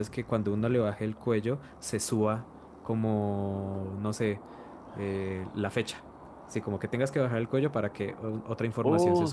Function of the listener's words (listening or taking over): taking over